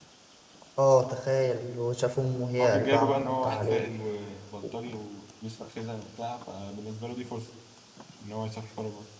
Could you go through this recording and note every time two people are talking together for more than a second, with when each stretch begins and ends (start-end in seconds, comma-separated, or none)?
2.6-3.8